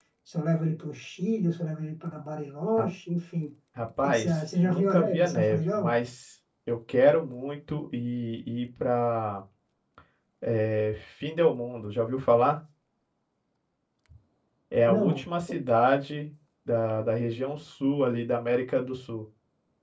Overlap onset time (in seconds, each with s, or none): 4.0 s